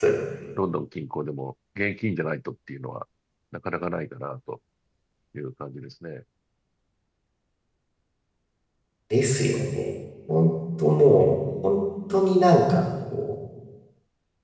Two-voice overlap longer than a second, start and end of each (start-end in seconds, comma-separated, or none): none